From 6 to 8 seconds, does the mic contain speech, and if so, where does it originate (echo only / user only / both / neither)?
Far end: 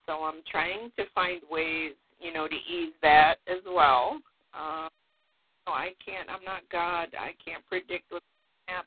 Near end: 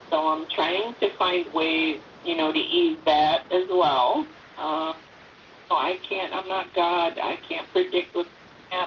echo only